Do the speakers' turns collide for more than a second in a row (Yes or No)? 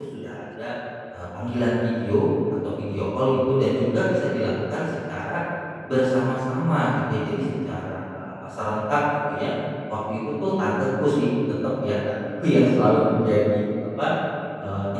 No